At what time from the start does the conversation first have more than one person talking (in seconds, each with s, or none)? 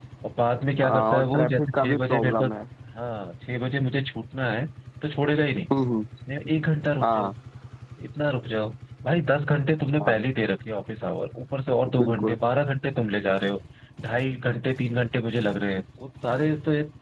0.8 s